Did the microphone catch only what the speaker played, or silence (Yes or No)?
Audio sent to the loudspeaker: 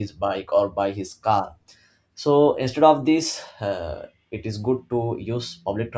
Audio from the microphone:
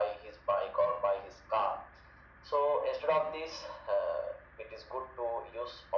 Yes